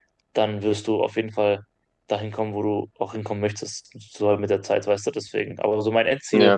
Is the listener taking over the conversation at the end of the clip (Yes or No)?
No